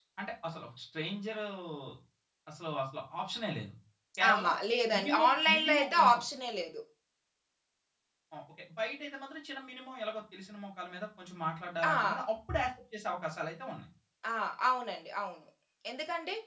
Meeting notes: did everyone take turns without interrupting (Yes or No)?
No